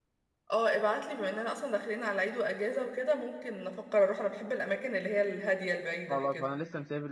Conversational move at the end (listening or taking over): taking over